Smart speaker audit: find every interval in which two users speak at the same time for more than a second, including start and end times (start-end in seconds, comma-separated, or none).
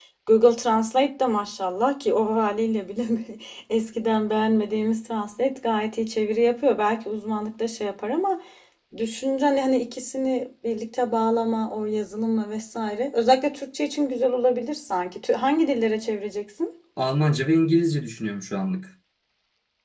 none